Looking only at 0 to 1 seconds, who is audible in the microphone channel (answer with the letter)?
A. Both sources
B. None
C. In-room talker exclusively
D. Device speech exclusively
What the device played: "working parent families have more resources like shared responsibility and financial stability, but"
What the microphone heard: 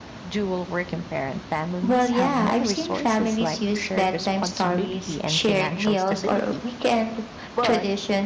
D